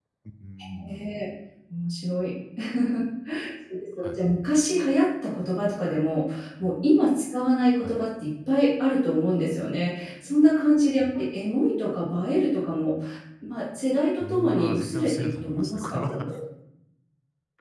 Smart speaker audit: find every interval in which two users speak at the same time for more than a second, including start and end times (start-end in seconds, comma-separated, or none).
14.2-16.1